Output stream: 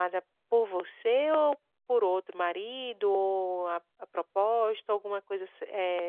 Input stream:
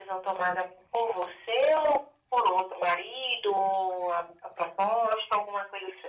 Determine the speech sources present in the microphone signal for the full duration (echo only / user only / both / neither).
echo only